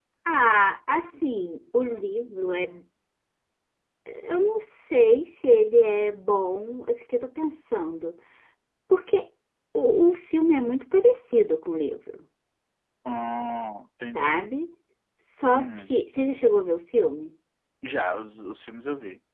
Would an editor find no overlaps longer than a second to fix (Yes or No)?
Yes